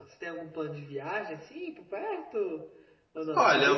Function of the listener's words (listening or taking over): taking over